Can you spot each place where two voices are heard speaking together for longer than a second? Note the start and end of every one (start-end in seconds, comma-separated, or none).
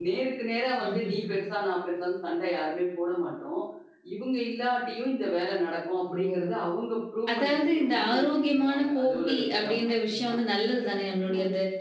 7.4-10.4